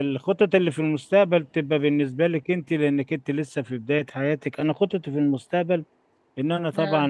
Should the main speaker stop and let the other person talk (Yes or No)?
No